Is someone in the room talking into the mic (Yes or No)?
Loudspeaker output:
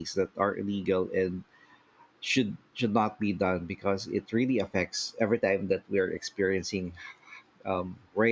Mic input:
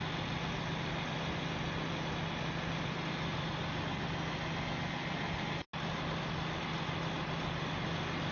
No